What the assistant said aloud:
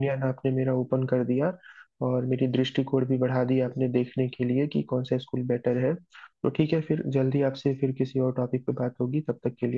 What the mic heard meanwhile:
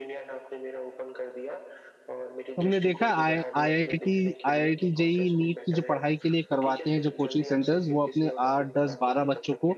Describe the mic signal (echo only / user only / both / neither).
both